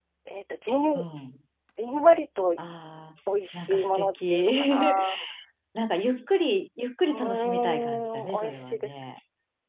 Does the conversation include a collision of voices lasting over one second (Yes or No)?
Yes